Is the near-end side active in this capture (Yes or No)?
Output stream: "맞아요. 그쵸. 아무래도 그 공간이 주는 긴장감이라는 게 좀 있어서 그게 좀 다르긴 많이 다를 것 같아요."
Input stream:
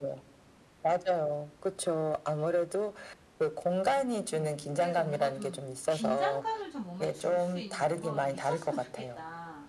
Yes